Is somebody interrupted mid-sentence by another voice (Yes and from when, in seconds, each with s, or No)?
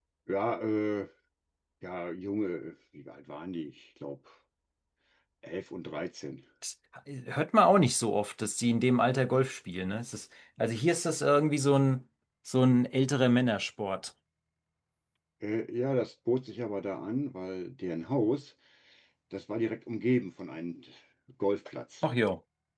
No